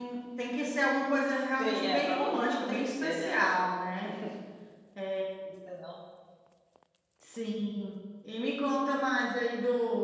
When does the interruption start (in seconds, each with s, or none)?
1.6 s